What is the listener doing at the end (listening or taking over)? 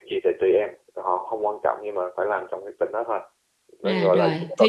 taking over